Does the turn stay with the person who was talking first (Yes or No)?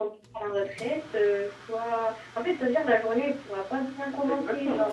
No